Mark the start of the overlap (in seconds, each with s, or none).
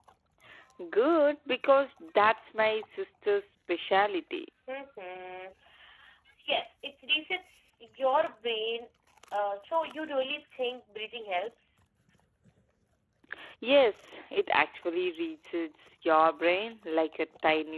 none